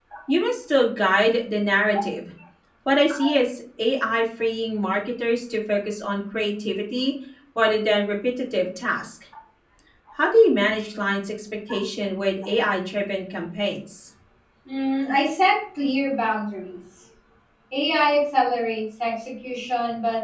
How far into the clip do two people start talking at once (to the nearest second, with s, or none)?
none